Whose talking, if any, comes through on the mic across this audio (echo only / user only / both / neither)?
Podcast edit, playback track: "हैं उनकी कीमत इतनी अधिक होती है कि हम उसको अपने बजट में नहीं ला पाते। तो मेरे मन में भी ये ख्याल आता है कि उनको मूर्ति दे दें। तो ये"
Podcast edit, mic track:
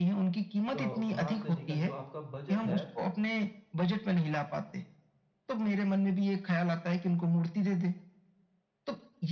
both